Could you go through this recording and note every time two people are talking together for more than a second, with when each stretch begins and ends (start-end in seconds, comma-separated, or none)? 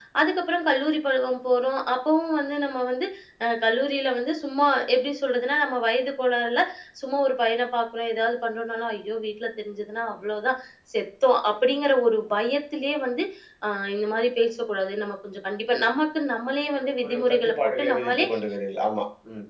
17.0-18.3